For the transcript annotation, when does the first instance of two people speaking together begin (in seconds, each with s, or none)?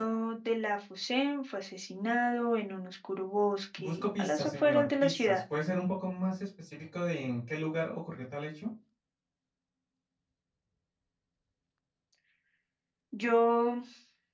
3.8 s